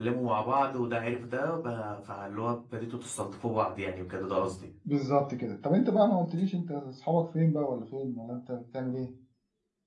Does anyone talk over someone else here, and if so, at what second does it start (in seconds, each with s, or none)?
none